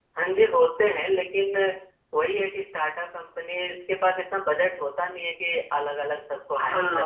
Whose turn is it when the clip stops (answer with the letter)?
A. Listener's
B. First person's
A